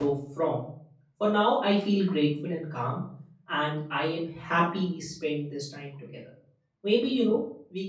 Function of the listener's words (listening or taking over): listening